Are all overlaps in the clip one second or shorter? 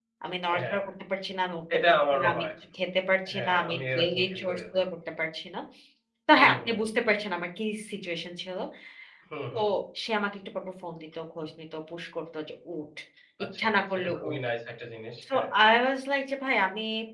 No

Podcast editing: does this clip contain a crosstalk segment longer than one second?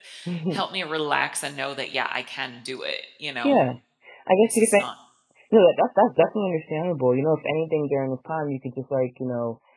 No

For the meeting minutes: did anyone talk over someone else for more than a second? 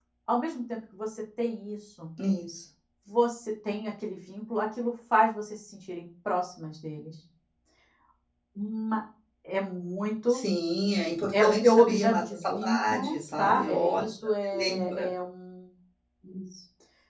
Yes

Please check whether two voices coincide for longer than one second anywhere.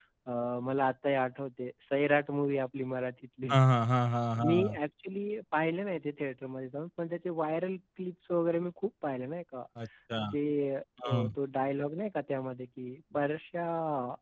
No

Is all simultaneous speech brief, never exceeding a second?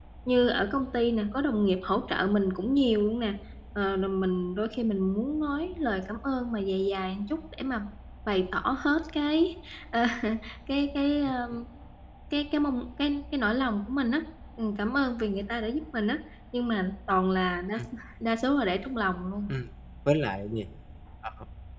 Yes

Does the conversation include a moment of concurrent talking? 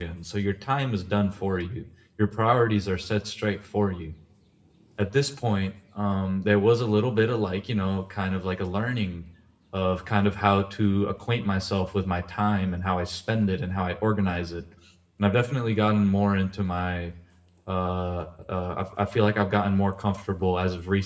No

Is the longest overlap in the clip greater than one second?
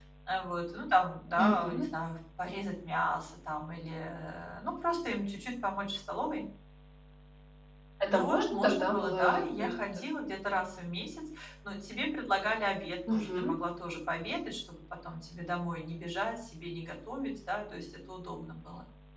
Yes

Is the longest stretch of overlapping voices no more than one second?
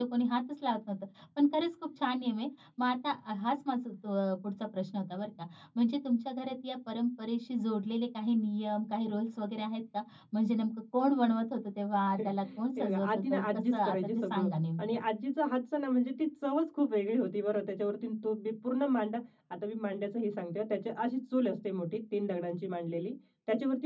No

